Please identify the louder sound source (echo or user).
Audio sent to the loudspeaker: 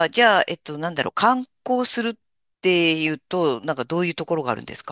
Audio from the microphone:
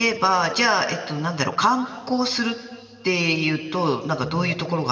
echo